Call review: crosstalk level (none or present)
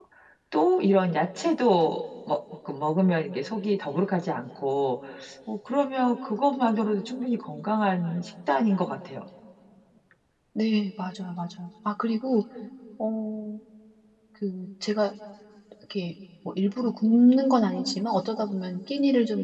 none